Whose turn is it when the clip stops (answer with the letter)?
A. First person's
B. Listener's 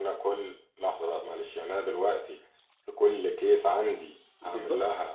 B